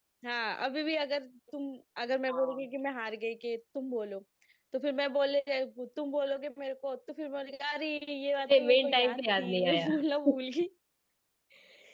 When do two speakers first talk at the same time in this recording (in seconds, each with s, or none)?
8.5 s